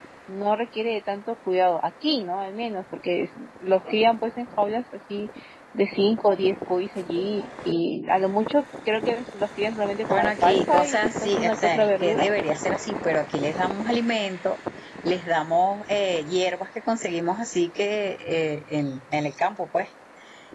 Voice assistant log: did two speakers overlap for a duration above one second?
Yes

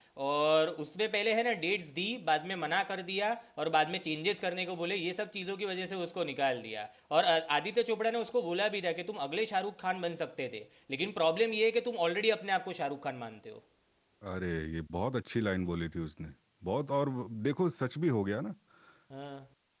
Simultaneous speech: No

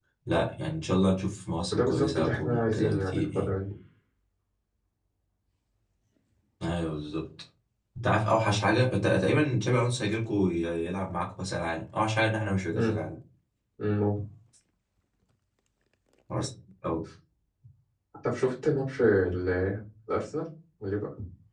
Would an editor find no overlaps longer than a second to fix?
No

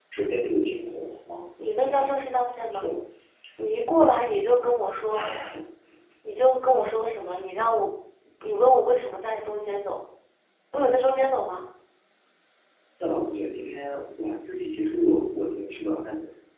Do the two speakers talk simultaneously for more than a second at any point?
No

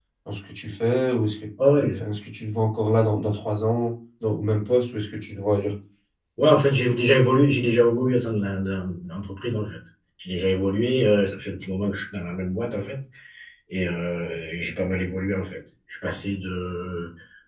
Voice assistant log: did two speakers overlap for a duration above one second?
No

